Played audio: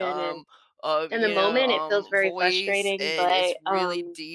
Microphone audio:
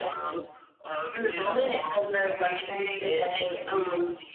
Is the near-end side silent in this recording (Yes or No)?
Yes